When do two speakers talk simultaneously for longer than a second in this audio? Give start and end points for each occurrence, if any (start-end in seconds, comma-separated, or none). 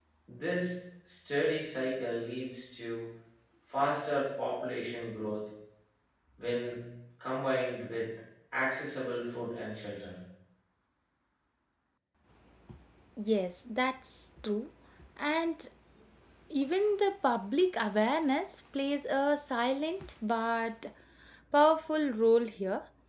none